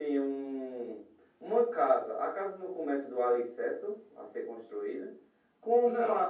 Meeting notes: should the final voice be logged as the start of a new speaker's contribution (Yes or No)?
No